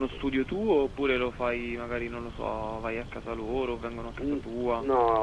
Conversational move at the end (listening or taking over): taking over